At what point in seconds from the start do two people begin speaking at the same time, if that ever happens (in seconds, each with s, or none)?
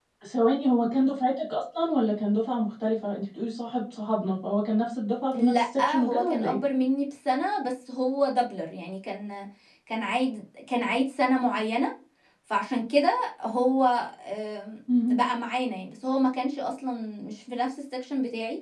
5.3 s